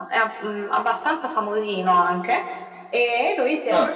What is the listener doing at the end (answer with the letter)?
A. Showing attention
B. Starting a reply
B